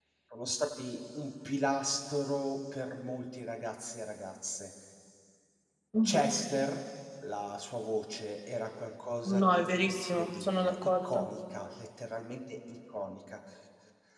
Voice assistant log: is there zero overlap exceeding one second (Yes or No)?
No